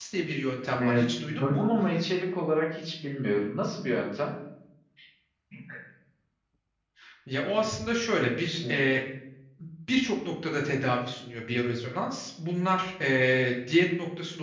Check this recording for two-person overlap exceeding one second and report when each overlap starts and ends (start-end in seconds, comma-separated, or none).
none